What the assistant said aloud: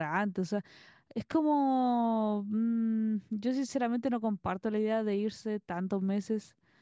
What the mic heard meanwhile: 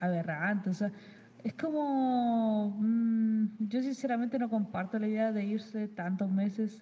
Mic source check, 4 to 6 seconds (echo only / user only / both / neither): echo only